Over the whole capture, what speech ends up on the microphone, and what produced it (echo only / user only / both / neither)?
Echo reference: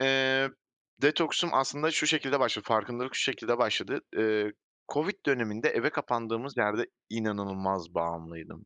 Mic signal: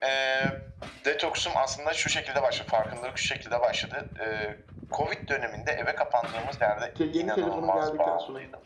both